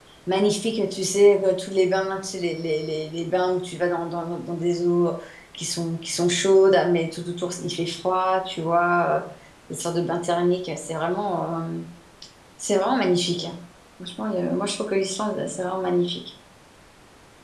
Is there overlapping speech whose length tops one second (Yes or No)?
No